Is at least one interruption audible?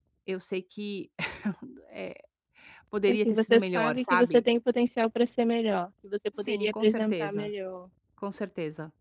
Yes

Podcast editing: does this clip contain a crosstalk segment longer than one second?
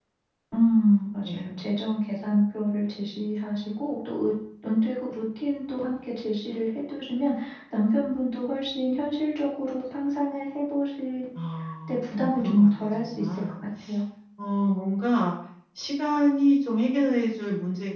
Yes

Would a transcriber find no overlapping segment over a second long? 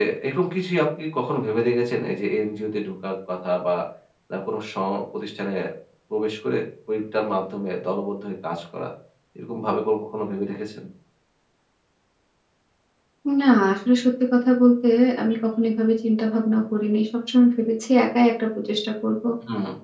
Yes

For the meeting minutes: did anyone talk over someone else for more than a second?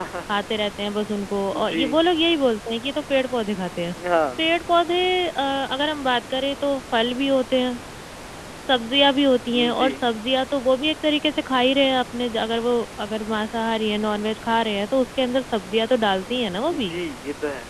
No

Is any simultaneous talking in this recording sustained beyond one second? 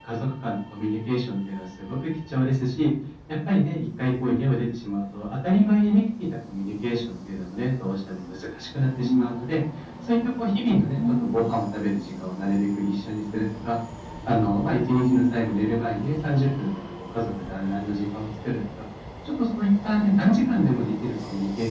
No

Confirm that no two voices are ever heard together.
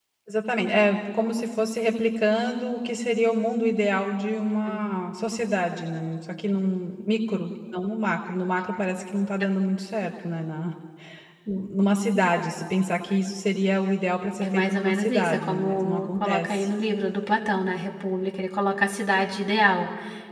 No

